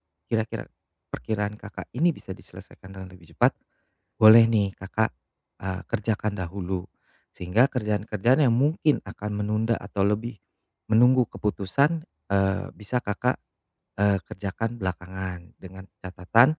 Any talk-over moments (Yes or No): No